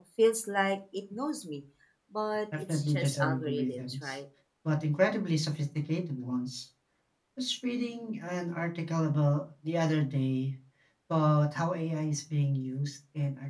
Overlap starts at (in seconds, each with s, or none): 2.6 s